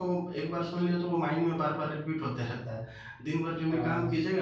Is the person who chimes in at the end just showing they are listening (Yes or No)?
Yes